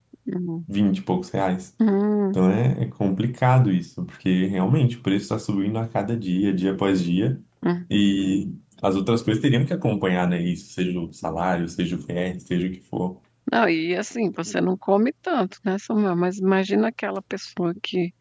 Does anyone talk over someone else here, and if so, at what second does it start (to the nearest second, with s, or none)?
none